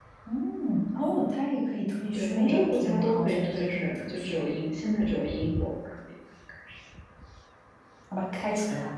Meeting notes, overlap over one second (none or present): present